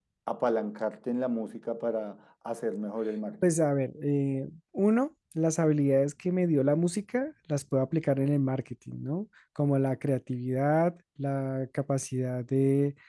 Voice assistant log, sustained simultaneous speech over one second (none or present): none